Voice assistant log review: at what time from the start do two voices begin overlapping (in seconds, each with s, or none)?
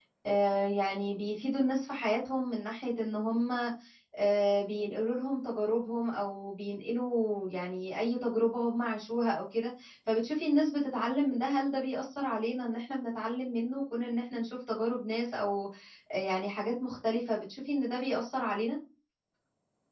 none